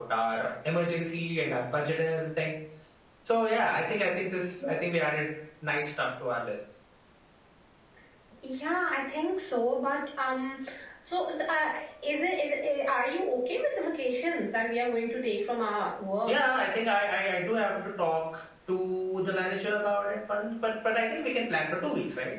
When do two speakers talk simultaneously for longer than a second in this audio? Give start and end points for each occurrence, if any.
none

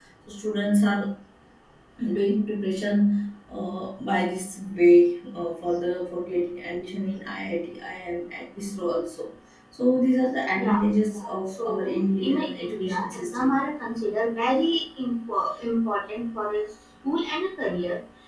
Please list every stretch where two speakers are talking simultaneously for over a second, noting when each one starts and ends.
10.6-13.6

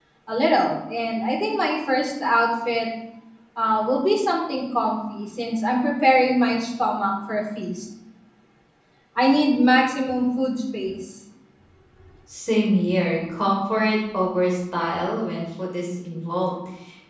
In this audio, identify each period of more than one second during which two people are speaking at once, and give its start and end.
none

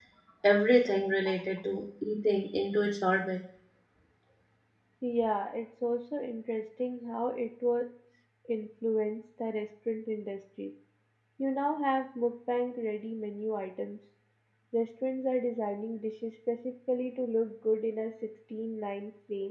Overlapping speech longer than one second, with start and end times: none

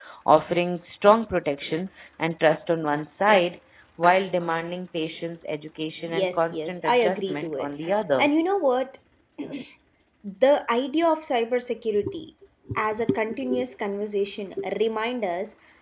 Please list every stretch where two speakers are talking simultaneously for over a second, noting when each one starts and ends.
6.1-7.7

